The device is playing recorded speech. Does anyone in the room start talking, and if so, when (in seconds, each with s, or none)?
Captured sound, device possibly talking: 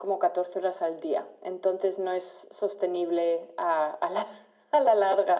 none